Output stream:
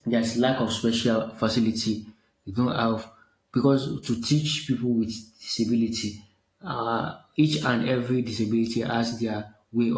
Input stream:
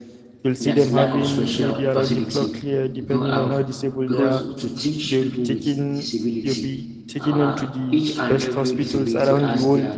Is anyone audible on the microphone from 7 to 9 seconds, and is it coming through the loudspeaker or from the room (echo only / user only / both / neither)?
both